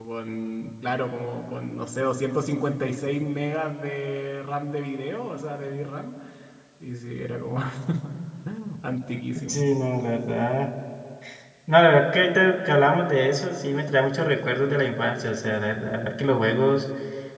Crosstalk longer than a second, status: none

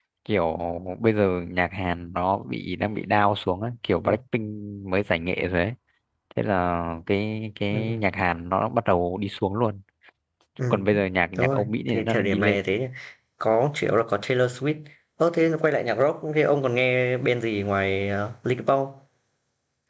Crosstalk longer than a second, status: present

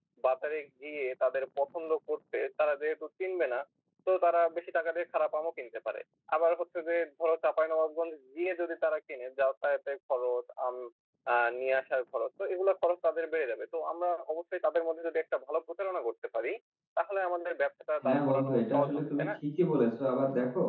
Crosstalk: present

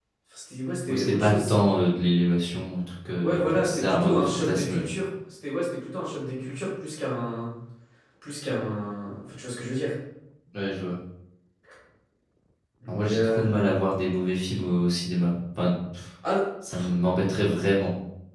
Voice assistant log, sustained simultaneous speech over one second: present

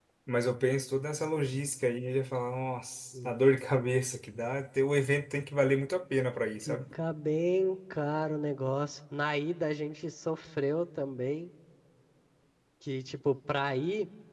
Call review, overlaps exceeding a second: none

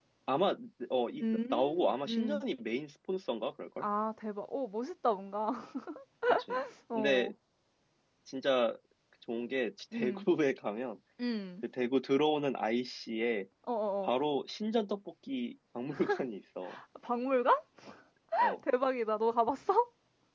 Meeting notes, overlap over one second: present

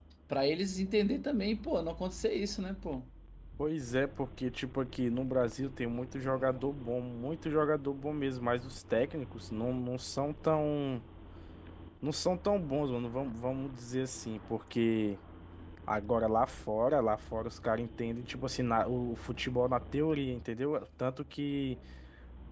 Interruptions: none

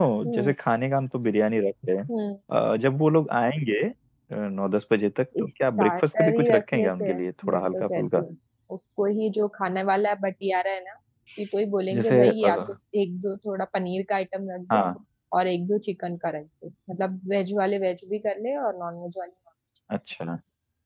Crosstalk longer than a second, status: present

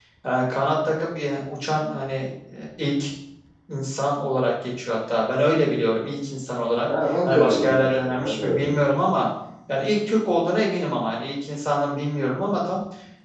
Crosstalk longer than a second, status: present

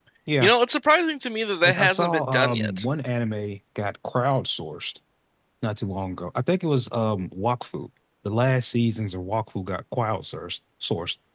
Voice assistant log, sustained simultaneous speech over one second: present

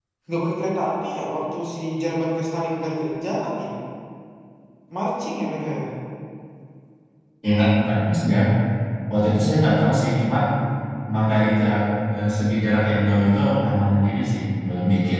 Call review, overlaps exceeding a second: none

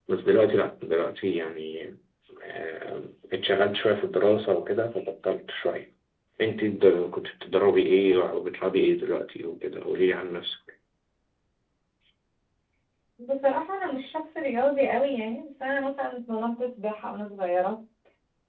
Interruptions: none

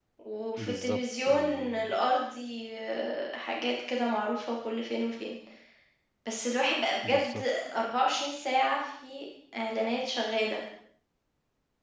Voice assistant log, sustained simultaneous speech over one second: present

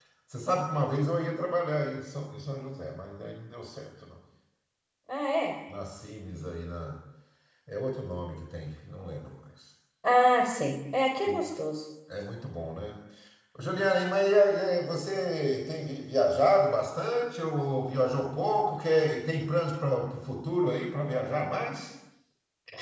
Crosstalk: none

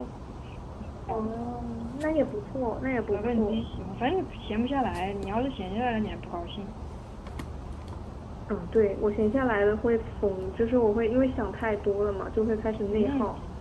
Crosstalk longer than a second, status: none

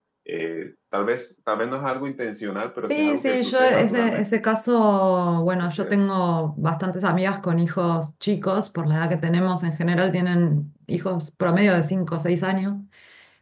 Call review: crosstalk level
present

